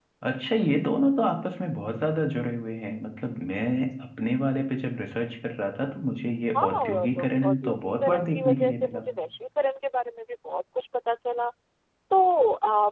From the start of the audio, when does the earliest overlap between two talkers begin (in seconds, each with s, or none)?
6.5 s